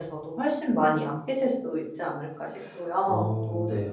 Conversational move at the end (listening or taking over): taking over